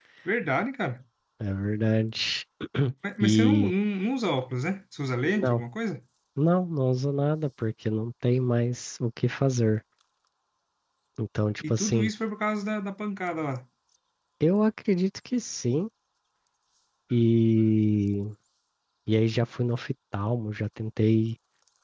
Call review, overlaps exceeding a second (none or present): none